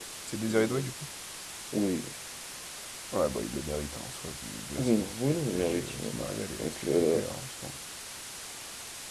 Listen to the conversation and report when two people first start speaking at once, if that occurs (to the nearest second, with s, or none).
5 s